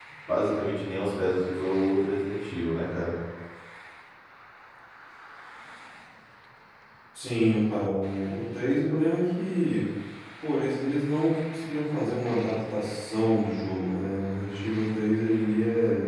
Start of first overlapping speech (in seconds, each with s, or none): none